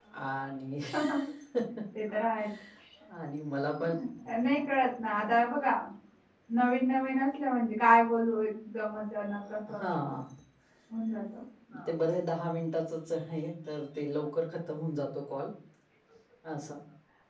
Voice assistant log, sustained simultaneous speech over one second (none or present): none